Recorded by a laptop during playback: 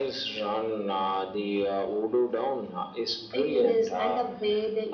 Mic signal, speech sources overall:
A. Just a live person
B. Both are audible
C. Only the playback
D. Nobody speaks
B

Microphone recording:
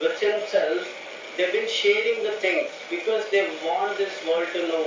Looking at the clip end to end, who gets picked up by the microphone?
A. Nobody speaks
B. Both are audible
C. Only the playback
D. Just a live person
C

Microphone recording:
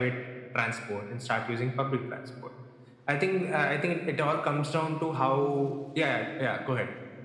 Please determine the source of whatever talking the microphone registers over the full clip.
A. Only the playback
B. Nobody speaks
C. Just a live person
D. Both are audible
A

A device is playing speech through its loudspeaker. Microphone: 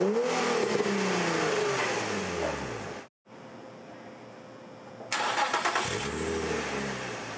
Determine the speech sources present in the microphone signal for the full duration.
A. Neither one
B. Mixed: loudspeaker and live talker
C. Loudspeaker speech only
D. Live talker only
A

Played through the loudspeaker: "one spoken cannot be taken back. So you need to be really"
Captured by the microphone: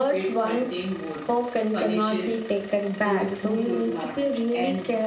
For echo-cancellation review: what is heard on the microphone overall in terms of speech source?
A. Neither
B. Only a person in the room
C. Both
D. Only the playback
C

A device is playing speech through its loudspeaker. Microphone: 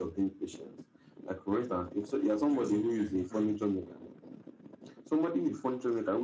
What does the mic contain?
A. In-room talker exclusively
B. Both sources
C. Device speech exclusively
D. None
B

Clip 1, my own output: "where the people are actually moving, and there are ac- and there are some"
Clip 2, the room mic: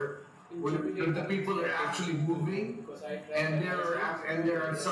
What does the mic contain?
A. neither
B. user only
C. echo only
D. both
D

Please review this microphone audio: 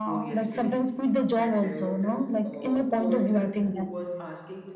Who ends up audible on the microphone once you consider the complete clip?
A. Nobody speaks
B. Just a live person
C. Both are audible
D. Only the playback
C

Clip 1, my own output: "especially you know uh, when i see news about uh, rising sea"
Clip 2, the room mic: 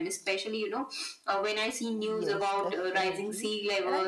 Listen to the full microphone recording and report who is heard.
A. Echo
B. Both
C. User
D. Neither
B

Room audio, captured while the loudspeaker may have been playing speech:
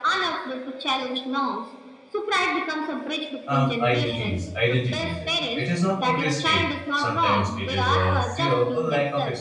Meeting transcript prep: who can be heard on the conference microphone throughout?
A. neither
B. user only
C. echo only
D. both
D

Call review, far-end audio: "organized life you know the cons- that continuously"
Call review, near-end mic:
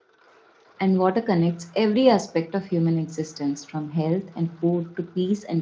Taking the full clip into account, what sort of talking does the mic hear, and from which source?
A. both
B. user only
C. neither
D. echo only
B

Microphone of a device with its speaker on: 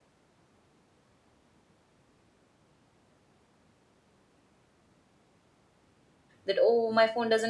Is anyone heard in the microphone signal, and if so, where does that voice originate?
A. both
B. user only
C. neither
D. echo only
B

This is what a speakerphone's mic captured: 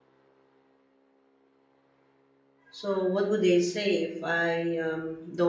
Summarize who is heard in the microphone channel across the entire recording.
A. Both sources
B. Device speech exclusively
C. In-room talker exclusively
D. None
C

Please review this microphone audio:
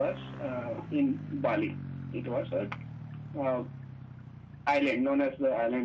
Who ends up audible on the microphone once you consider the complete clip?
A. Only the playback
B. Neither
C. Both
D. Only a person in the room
A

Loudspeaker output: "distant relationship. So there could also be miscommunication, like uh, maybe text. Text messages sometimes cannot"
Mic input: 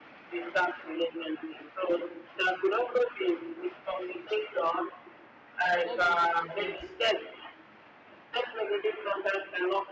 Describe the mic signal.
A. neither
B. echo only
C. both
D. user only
C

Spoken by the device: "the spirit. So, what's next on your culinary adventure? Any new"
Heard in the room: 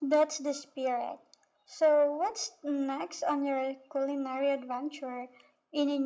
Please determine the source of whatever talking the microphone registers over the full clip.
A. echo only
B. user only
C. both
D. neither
A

